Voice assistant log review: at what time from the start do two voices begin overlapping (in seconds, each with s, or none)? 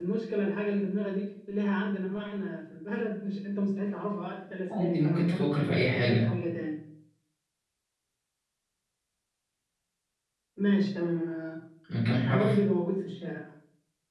4.8 s